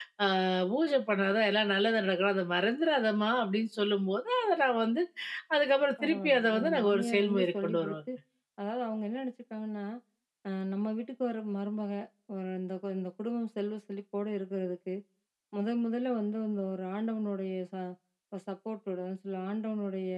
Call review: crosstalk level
present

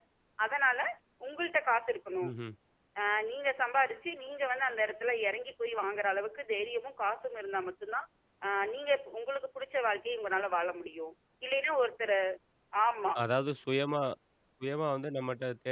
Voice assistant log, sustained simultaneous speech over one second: none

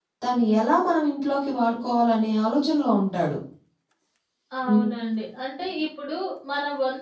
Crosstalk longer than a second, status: none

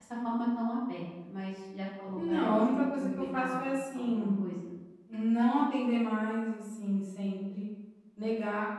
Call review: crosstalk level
present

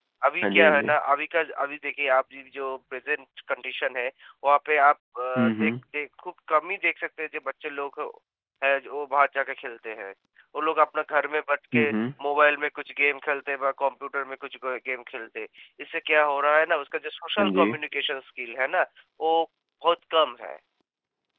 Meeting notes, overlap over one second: none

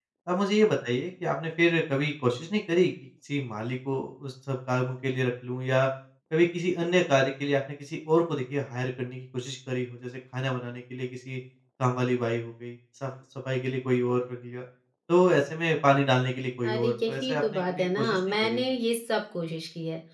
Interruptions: present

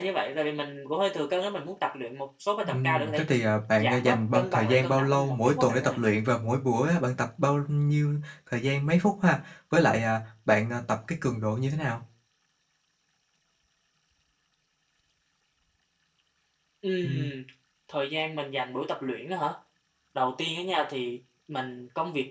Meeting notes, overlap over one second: present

